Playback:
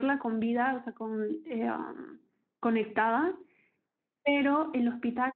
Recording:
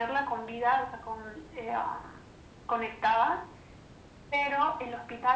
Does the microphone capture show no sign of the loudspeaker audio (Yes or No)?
No